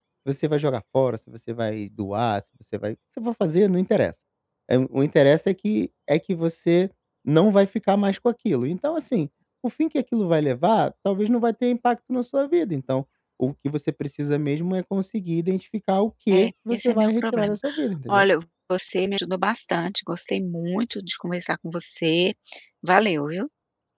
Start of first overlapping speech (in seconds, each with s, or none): 16.3 s